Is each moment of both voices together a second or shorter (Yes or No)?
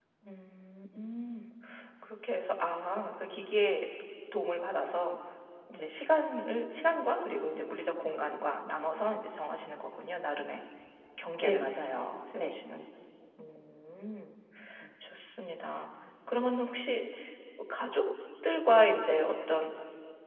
Yes